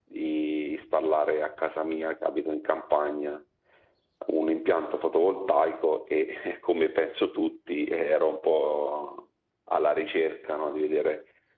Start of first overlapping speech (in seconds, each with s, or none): none